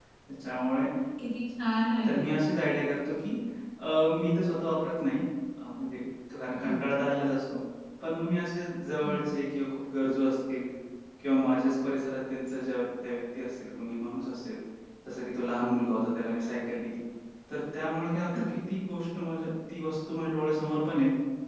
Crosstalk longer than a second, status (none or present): none